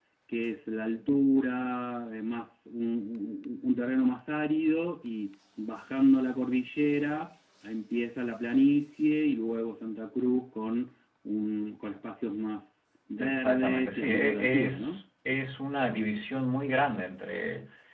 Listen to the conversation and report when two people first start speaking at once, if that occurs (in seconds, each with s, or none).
13.2 s